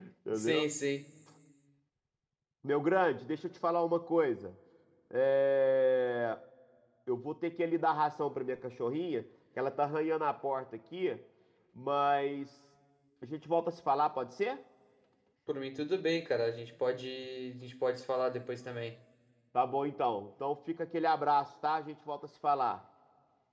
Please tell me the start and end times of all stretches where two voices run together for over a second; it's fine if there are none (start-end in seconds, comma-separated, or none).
none